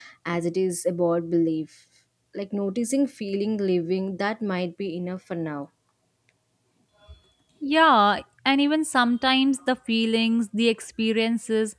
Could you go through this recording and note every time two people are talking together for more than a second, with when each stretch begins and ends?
none

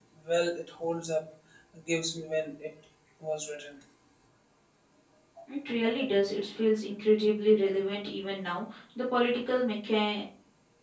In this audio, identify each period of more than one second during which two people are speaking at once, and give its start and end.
none

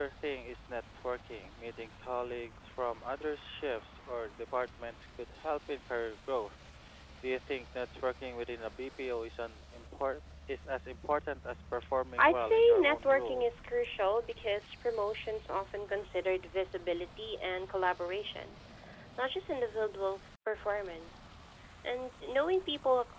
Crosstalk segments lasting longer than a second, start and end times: 12.2-13.5

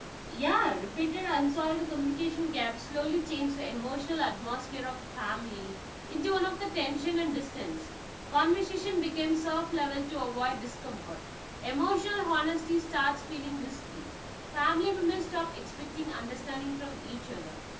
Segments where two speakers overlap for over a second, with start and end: none

